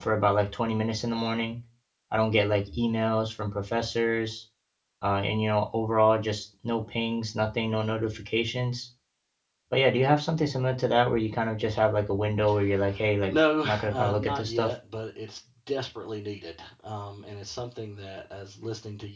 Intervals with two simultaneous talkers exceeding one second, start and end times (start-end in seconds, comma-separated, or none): 13.3-14.7